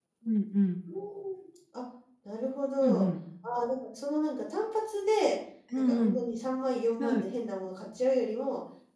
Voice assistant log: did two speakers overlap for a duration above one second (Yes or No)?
No